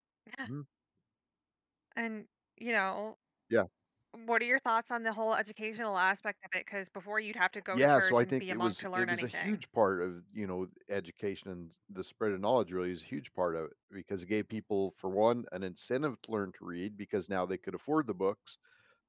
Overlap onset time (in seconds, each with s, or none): 7.7 s